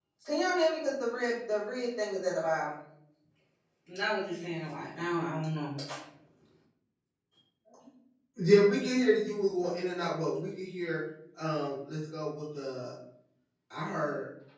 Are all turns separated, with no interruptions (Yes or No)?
Yes